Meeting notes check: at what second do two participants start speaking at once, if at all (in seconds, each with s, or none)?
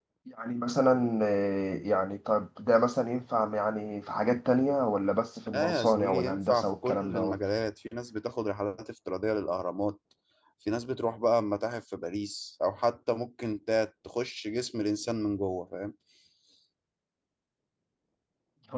5.5 s